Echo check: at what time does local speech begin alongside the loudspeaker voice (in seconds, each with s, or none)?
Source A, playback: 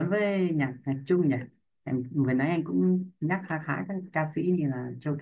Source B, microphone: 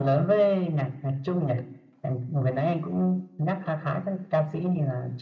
none